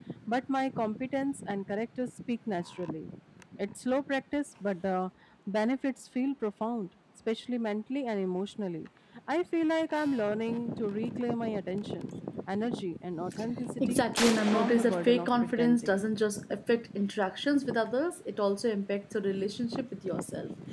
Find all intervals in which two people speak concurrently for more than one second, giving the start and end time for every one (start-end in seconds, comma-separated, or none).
14.5-16.0